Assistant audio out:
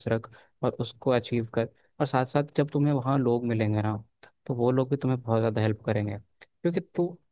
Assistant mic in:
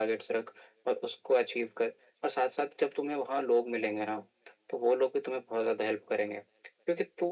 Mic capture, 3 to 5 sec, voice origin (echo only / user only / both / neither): echo only